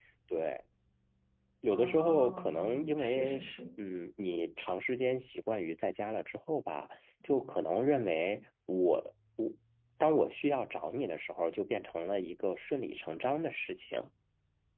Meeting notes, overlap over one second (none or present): present